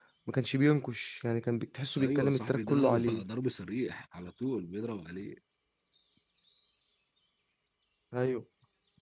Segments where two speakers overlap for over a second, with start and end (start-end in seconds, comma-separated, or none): 2.0-3.2